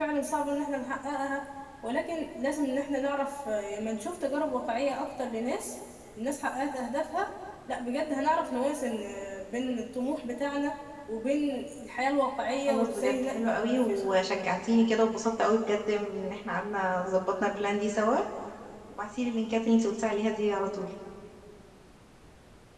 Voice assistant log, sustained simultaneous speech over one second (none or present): present